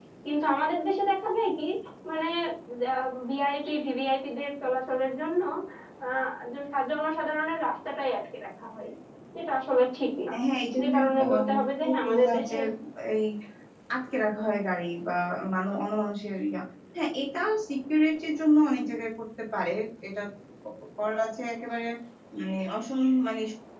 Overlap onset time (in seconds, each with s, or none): 10.8 s